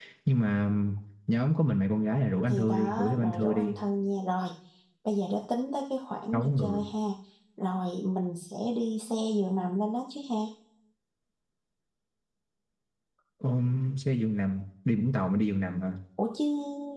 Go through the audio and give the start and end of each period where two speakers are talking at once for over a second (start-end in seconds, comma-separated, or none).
2.5-3.7